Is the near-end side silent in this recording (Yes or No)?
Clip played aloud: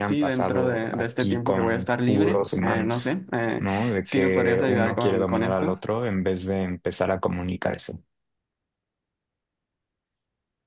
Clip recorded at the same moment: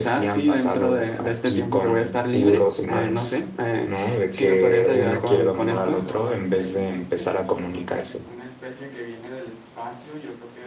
No